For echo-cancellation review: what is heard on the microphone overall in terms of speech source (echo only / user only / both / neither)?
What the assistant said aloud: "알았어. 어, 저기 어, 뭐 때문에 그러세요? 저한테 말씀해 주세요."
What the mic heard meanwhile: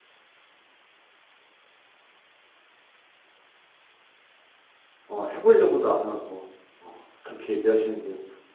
user only